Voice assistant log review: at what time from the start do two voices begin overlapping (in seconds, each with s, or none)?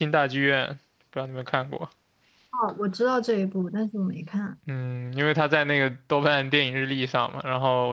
none